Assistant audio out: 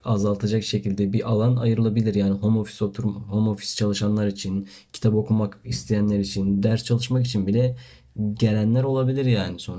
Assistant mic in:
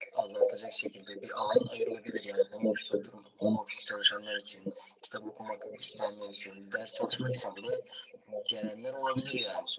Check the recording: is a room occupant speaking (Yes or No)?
No